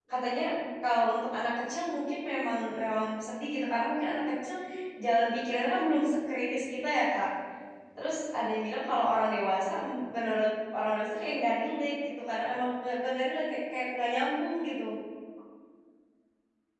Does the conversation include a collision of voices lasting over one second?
No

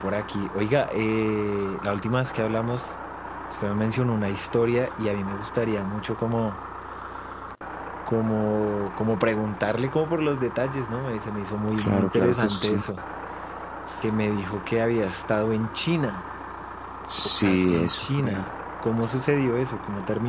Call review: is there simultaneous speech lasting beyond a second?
Yes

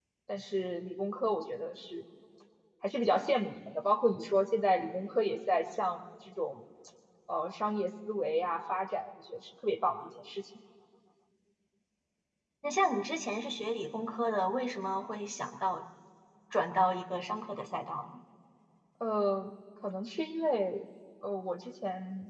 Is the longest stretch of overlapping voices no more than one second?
Yes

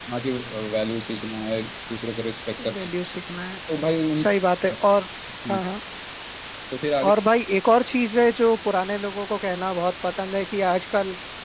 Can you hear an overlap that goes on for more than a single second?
No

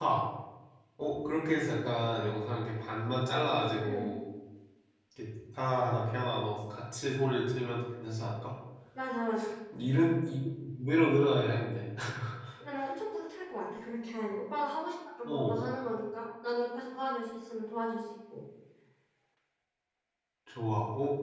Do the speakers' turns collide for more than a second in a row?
No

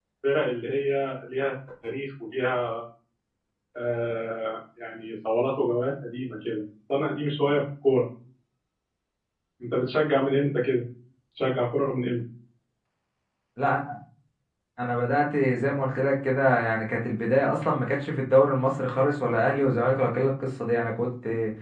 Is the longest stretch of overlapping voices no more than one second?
Yes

